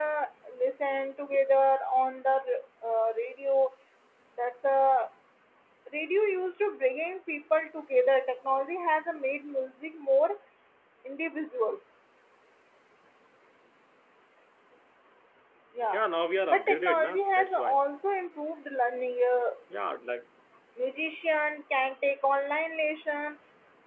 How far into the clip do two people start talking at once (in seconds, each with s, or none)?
16.5 s